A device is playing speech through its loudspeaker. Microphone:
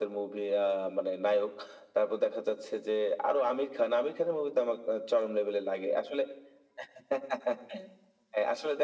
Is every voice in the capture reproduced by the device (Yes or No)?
Yes